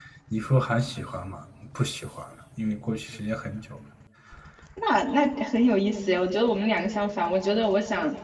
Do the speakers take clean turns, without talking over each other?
Yes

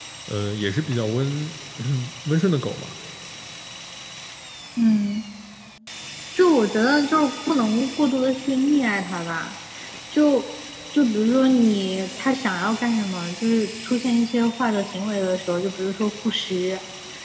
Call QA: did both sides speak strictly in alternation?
Yes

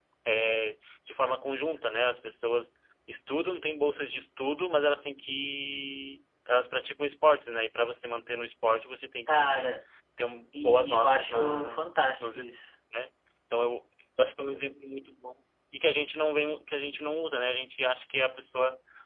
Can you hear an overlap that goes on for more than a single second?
Yes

